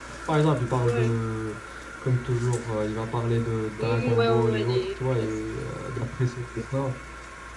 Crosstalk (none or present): present